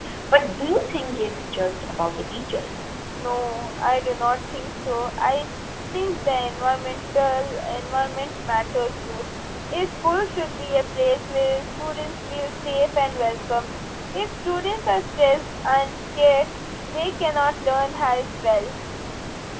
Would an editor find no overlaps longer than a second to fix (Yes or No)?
Yes